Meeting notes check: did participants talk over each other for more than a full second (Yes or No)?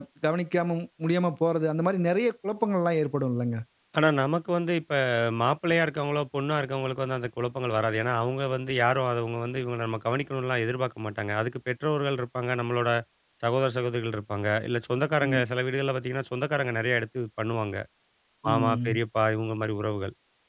No